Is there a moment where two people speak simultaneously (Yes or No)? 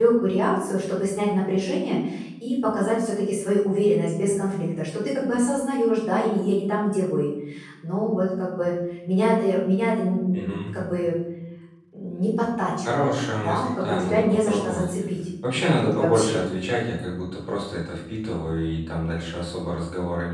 Yes